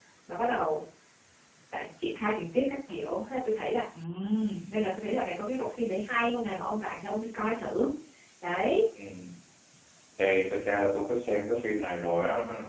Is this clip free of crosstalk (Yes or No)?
Yes